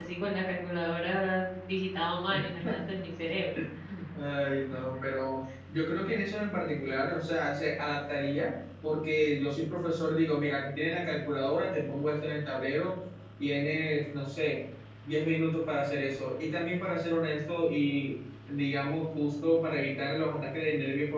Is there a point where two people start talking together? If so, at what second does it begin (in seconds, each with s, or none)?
none